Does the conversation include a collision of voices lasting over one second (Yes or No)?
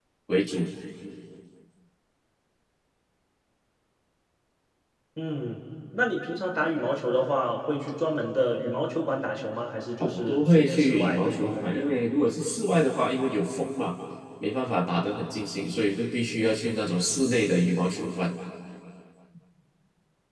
Yes